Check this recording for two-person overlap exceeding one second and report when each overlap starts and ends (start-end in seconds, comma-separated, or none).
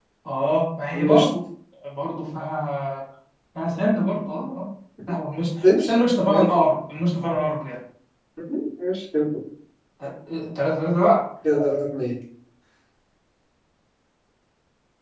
none